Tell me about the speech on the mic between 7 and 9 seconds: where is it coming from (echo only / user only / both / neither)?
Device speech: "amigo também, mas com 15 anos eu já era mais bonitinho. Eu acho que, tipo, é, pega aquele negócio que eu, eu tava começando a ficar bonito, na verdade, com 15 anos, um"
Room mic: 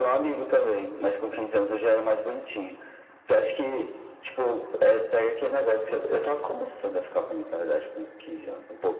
echo only